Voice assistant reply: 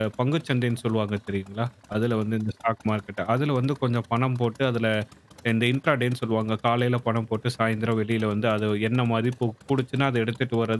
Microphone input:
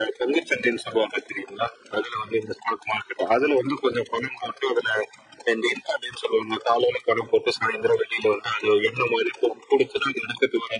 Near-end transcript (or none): none